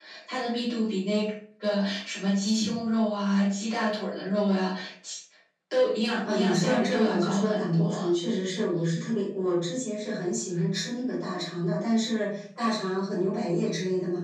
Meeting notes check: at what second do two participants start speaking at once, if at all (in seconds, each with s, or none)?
6.3 s